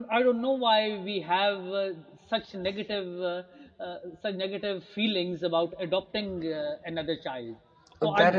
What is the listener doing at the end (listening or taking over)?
taking over